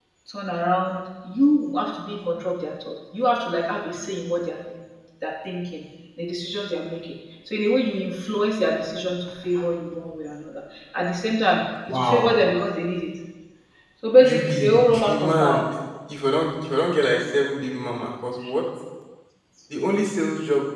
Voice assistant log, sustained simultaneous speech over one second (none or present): present